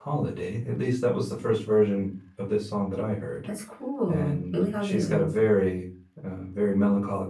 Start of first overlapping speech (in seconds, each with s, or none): 4.1 s